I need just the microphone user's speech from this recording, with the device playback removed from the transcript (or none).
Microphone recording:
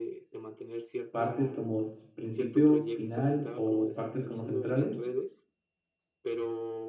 partes como principio, final o partes como centrales,